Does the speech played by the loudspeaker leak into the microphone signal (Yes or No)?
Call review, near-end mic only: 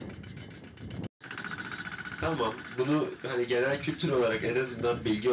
No